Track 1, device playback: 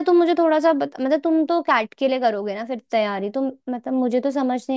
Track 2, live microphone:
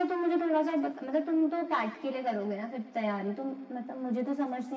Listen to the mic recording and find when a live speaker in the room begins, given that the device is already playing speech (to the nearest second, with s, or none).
none